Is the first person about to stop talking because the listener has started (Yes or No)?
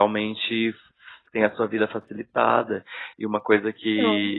No